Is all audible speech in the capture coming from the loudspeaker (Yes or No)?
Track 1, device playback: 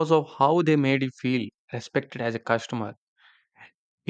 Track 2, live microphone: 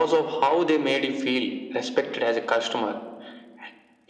Yes